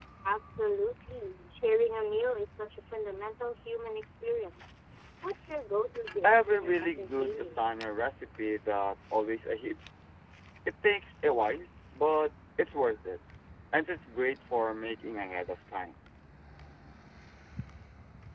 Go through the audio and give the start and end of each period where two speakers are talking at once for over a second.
6.2-7.7

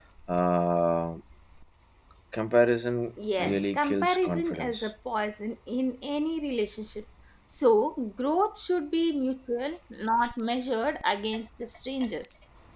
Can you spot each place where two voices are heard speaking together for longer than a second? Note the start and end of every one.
3.4-4.9

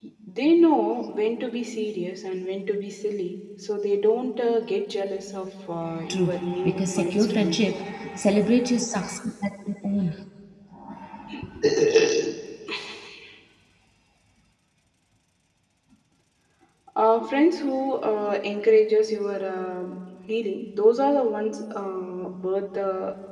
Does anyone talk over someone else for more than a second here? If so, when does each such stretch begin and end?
6.1-7.6

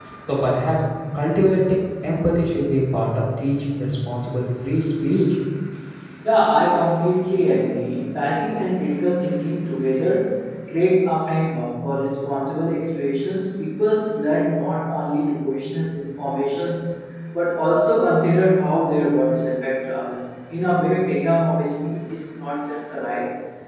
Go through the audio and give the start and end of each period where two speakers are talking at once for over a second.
none

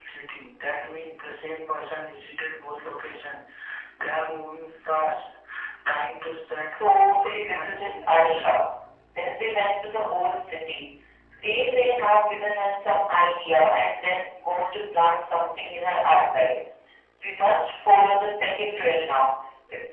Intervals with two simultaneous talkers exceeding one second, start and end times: 6.5-8.6

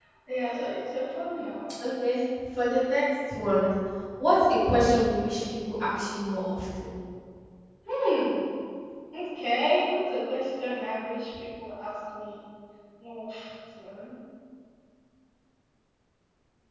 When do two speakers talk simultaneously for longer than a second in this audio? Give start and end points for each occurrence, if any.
none

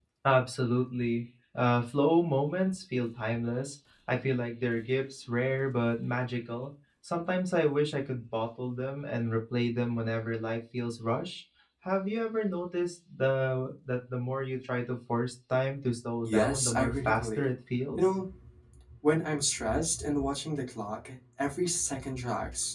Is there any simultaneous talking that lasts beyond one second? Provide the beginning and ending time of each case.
16.2-17.5

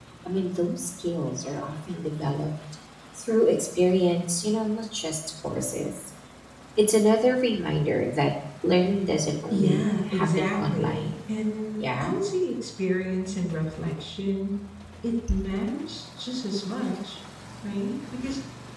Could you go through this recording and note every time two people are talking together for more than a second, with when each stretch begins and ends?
9.5-11.1

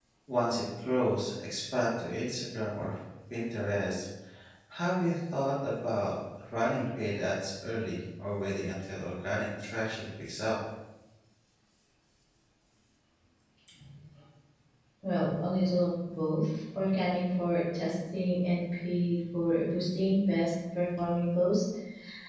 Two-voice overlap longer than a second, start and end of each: none

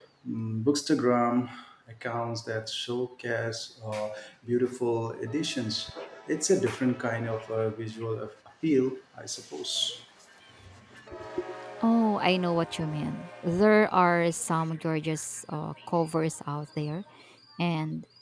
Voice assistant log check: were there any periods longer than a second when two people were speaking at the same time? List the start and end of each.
none

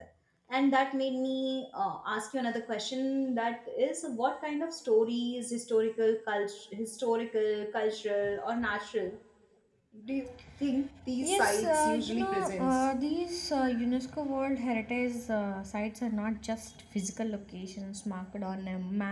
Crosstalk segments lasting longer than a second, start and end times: 11.2-12.9

